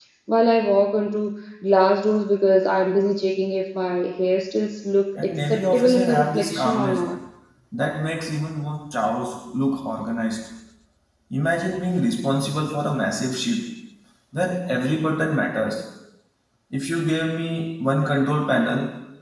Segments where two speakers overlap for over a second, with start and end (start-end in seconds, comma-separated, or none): 5.2-7.0